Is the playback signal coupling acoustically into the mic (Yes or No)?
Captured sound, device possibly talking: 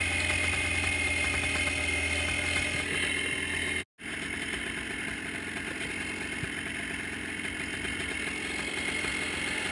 No